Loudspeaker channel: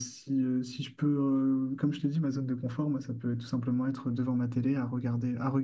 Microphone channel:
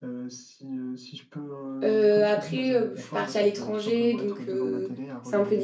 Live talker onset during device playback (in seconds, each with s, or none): 1.8 s